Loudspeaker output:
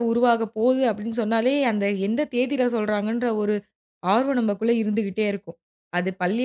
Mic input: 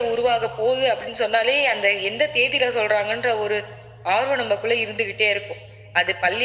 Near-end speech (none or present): none